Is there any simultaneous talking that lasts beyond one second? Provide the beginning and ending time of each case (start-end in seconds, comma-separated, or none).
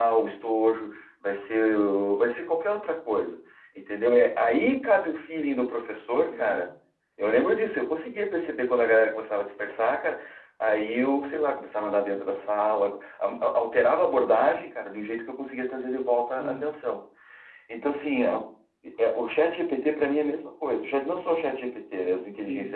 none